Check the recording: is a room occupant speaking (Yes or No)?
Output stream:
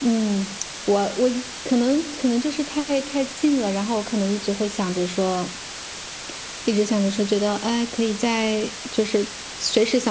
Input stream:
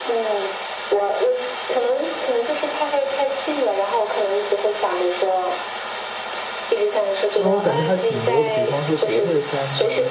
Yes